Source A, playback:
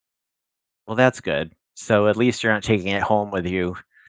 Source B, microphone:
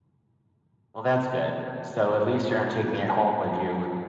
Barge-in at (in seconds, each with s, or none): none